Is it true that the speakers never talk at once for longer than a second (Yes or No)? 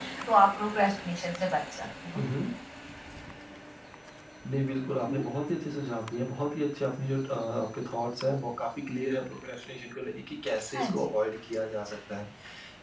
Yes